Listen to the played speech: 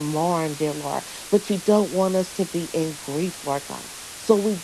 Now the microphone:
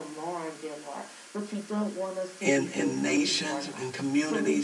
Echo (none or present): present